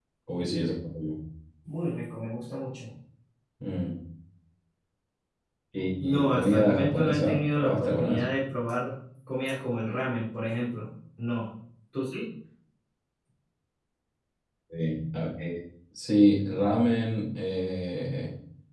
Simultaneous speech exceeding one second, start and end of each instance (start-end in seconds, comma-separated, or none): 6.0-8.2